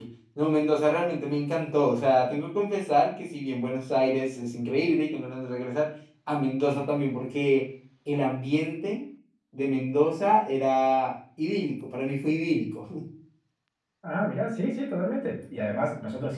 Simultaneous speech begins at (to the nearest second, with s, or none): none